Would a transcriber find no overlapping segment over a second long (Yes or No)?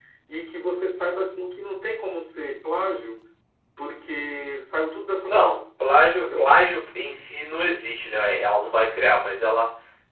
Yes